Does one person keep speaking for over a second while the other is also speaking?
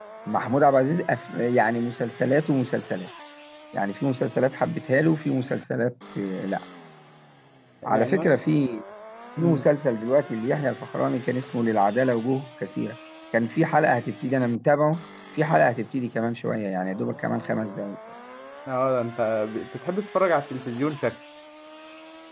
No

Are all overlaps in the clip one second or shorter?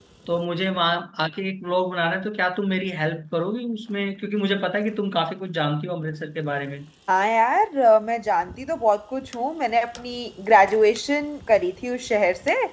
Yes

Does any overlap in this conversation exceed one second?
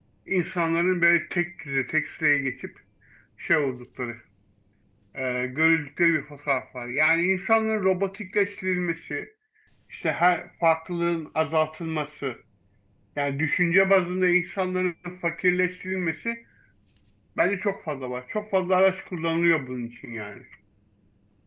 No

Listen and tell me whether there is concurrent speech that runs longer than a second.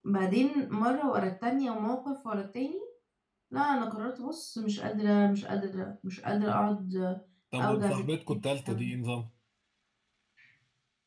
Yes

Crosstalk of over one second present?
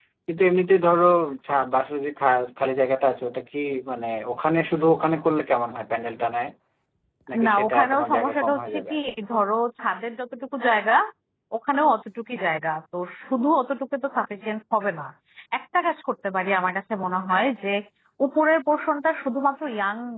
Yes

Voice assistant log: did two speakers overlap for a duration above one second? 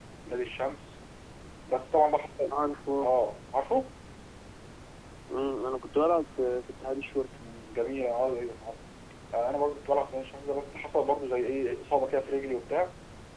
No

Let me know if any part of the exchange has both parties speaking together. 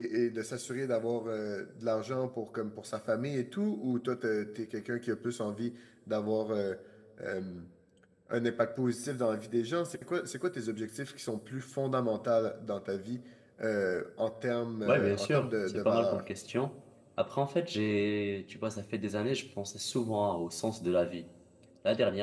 Yes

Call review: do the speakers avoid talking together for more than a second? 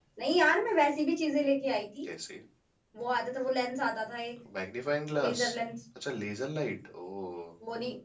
Yes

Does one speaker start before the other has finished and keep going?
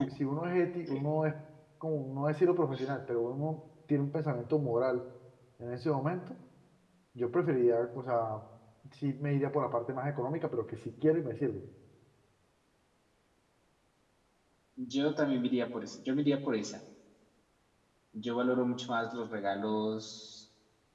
No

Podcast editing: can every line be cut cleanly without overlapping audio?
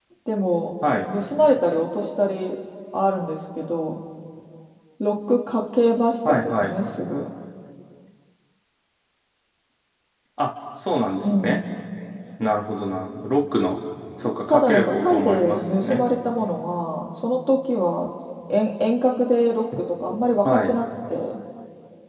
No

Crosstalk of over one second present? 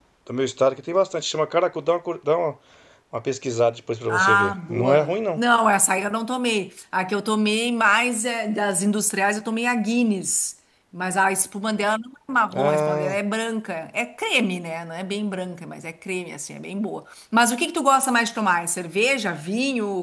Yes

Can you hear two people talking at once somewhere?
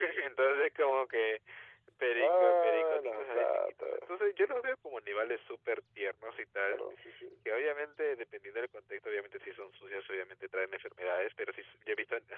Yes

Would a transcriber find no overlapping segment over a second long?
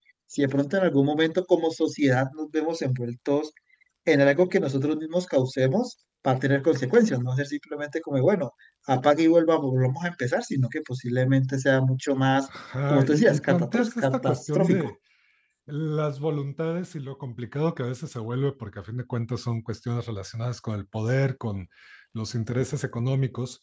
No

